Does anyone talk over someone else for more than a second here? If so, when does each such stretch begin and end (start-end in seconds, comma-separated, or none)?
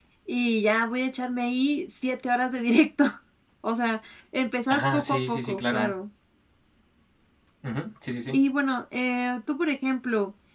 4.7-6.0